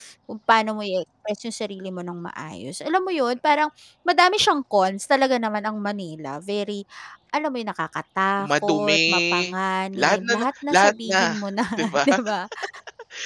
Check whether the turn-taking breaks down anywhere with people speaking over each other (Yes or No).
Yes